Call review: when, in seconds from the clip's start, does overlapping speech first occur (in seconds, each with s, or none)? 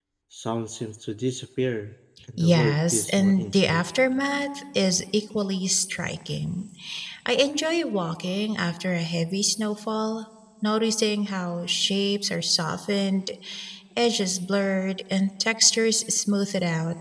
2.4 s